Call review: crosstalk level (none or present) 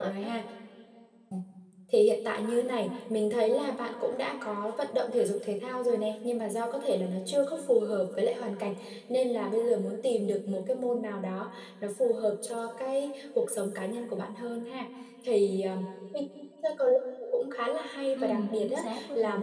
present